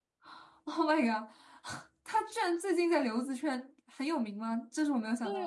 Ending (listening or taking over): taking over